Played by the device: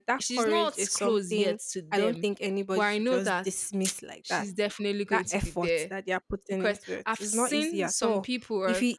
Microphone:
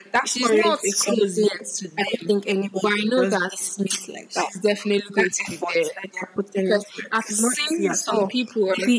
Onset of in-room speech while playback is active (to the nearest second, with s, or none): none